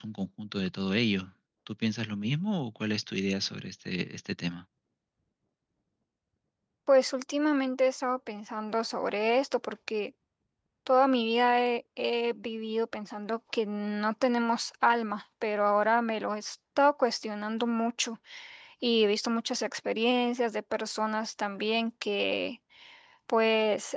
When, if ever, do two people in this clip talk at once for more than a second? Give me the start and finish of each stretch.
none

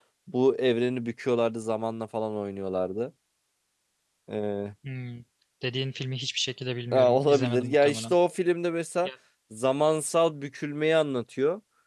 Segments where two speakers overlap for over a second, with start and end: 6.9-8.2

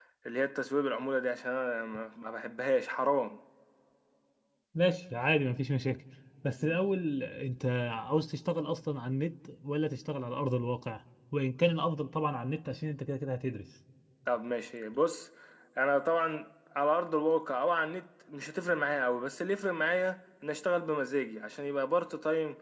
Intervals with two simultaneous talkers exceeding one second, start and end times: none

